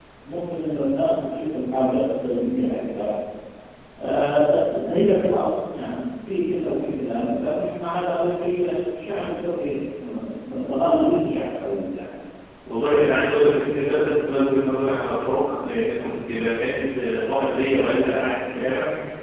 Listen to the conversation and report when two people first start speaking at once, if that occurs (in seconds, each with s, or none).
none